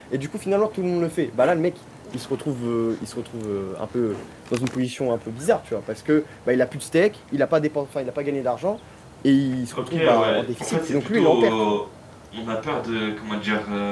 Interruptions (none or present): present